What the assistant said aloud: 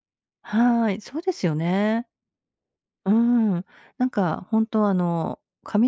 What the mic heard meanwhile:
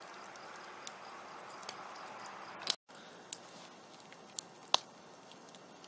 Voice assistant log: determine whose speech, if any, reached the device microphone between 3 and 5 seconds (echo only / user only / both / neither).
neither